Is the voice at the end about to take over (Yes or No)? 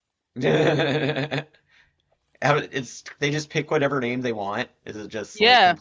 Yes